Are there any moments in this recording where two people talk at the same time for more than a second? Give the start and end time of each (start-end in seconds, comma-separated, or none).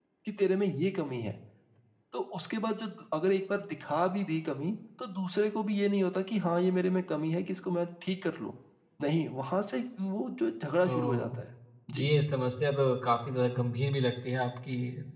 none